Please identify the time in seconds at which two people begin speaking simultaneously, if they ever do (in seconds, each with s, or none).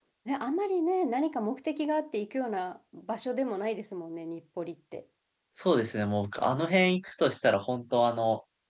none